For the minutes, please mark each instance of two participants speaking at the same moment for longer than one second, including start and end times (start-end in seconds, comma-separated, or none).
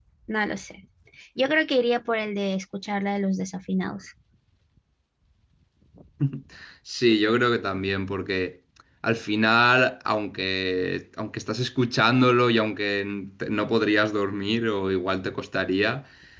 none